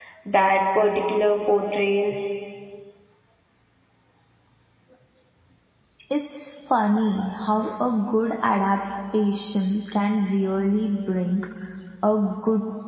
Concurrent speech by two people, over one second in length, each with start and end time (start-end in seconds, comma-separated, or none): none